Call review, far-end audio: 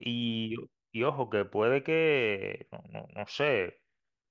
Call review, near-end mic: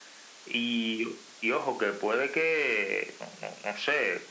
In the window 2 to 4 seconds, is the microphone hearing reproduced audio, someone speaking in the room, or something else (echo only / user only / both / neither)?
echo only